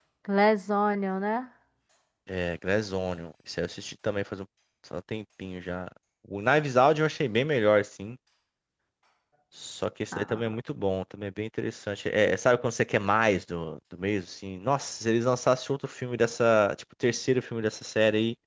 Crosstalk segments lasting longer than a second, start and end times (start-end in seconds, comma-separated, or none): none